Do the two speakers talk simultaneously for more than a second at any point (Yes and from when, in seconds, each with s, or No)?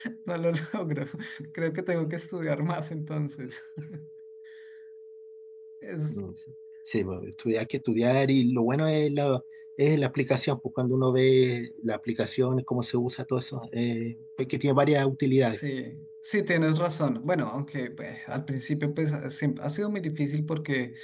No